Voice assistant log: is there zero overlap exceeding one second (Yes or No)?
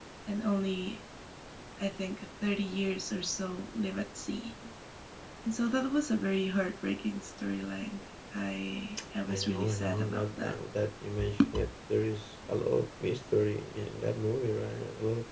No